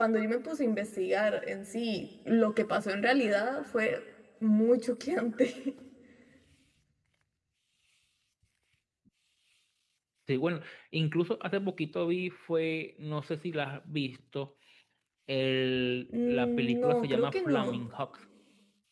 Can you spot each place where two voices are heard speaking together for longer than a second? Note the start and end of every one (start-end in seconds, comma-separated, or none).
16.3-17.8